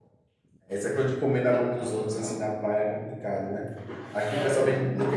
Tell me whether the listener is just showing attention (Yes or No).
Yes